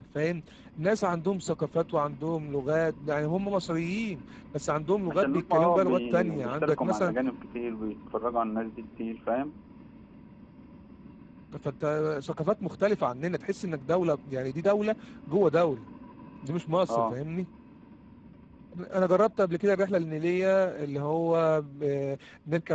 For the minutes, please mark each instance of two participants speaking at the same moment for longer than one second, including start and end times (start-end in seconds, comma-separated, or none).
5.1-7.1